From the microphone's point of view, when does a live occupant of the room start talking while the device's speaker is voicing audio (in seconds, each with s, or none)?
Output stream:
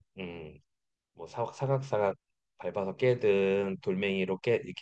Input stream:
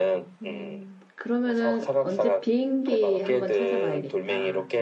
0.4 s